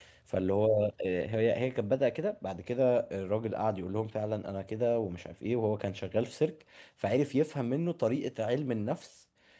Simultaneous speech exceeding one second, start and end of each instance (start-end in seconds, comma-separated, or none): none